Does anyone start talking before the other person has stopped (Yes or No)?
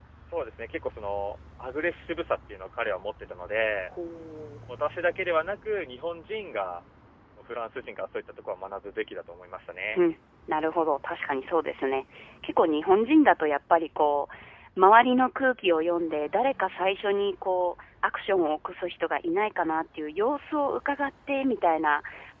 No